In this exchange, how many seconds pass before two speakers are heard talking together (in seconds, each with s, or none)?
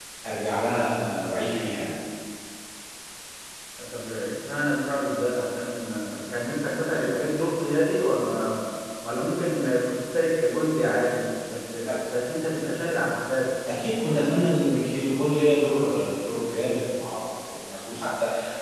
none